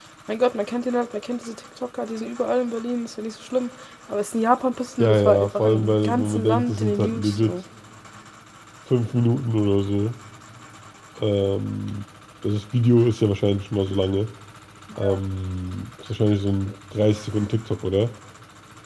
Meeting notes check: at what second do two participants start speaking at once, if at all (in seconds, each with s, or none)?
5.0 s